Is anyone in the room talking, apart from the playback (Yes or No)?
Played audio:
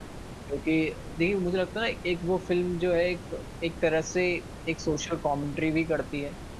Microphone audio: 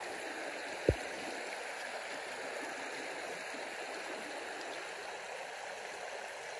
No